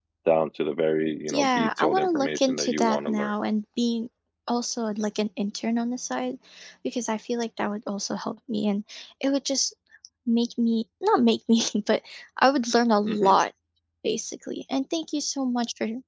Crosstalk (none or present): present